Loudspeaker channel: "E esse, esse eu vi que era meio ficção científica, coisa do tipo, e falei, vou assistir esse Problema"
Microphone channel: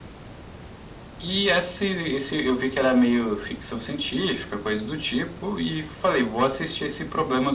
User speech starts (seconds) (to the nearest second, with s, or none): none